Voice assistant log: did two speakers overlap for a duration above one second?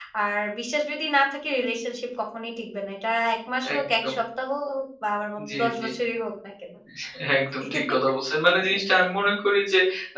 No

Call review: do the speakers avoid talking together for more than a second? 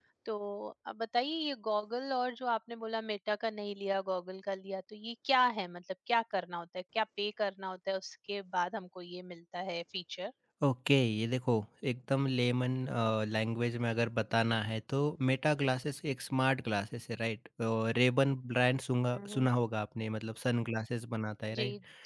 Yes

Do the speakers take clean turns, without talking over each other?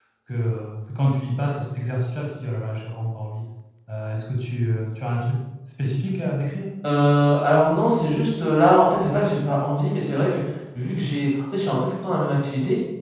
Yes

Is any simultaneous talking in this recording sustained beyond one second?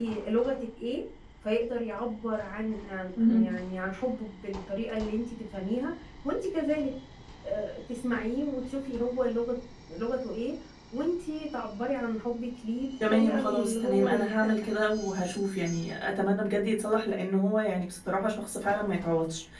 Yes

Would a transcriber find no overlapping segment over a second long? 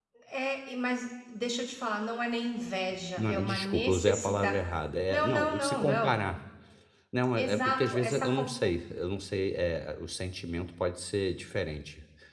No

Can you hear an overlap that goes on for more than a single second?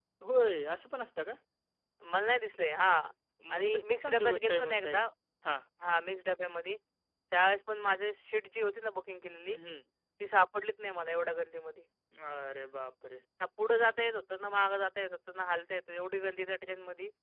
Yes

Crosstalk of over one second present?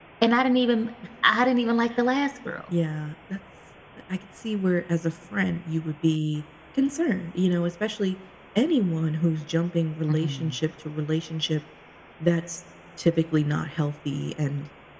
No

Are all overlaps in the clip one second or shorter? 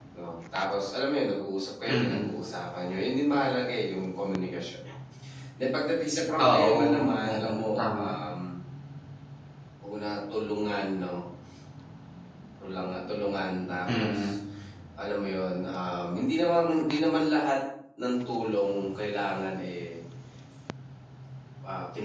No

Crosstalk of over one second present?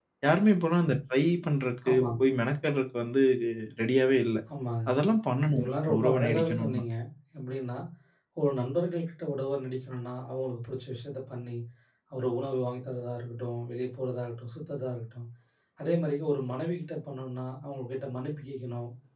Yes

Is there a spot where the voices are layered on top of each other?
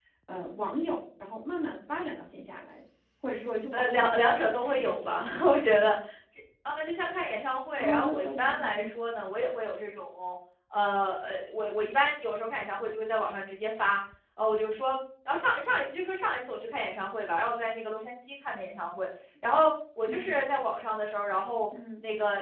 Yes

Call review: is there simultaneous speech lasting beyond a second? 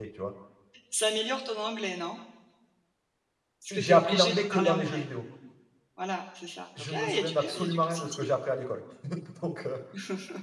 Yes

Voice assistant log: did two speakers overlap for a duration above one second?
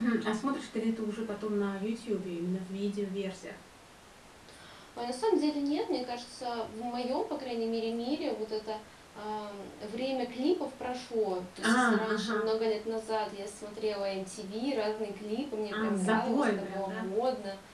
Yes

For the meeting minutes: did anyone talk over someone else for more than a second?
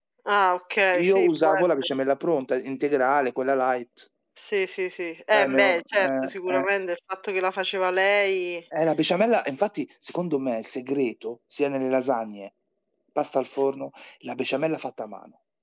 Yes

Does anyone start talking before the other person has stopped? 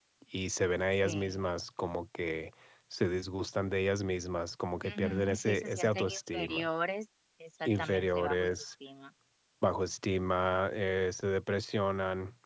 Yes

